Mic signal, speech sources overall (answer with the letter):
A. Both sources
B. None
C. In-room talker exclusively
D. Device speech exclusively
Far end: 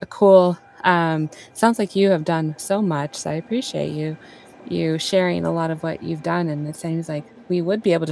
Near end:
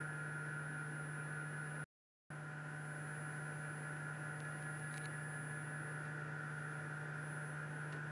B